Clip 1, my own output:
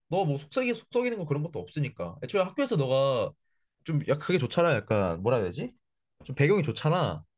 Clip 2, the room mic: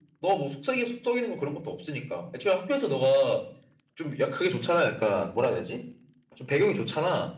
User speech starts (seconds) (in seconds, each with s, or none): none